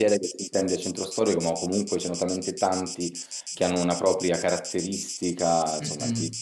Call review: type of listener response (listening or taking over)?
taking over